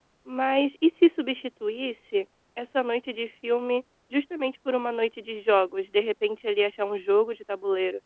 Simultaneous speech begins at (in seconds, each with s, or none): none